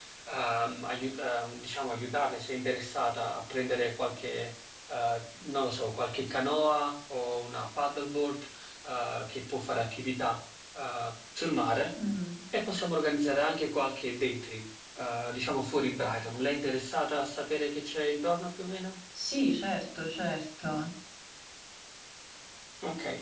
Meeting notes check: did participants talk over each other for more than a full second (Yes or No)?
No